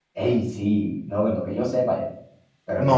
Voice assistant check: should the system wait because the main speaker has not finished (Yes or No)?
No